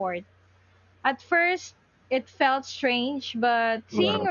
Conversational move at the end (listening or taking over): listening